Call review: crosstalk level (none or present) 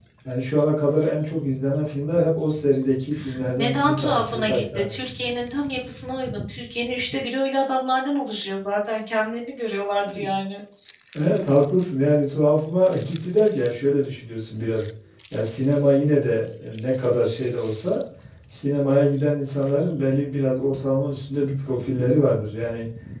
present